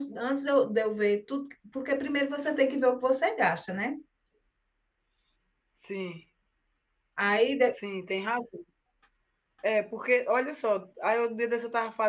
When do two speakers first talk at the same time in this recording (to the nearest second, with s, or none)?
none